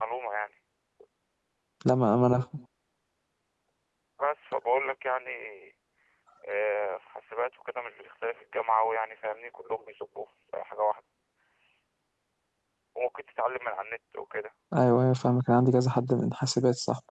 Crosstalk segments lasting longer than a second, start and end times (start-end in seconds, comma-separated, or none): none